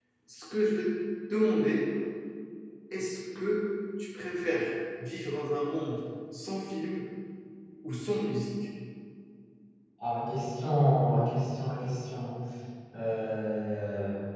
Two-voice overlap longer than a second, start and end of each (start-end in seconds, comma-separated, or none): none